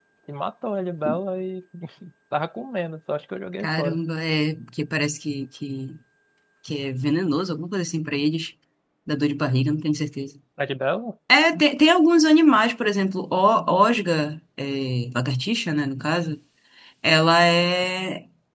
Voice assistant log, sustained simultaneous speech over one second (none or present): none